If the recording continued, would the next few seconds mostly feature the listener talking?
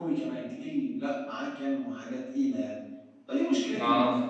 No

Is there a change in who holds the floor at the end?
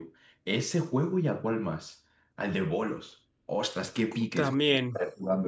No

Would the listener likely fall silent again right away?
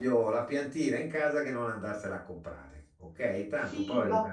No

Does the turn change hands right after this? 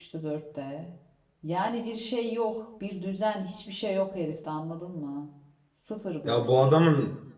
Yes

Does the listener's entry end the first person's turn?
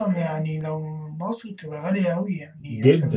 Yes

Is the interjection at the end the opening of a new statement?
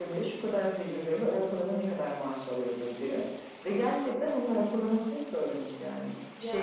Yes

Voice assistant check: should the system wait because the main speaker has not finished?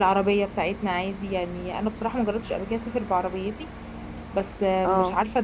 Yes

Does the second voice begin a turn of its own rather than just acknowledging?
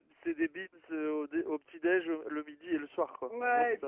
Yes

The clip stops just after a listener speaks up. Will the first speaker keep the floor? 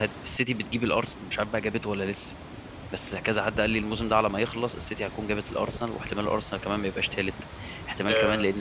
Yes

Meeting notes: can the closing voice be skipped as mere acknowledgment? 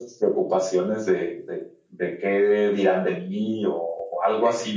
Yes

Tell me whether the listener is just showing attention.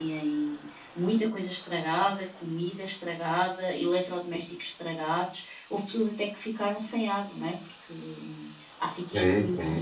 No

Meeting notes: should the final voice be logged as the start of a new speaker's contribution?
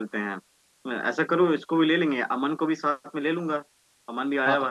Yes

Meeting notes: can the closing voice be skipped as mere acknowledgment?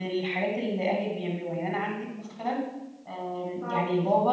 Yes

